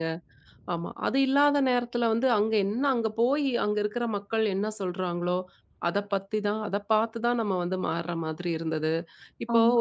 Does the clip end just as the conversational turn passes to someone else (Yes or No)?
No